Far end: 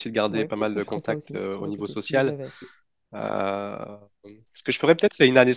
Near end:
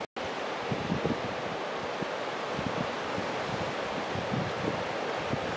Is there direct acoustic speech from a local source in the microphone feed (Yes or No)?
No